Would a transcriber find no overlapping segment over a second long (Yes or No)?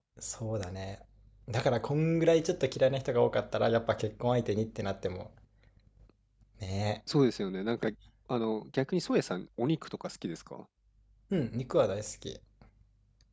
Yes